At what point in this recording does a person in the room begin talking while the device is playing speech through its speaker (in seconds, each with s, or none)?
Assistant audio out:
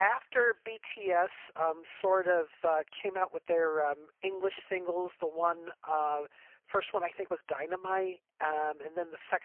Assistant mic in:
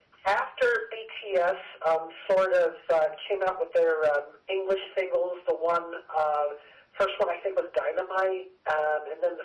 none